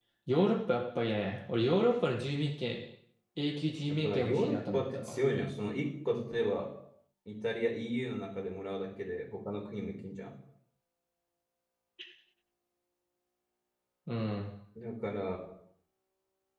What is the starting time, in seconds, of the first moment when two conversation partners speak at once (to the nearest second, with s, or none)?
4 s